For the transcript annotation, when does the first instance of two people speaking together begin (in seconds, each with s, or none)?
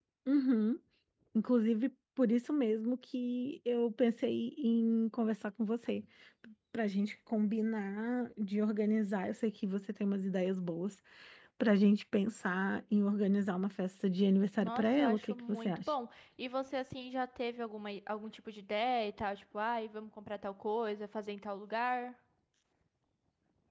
14.6 s